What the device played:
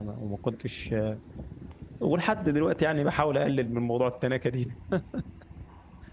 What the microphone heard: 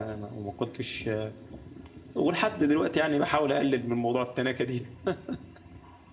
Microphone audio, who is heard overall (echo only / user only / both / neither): echo only